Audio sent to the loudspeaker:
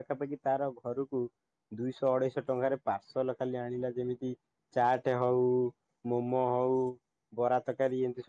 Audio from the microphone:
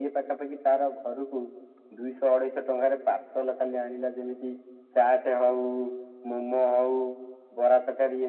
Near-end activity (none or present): none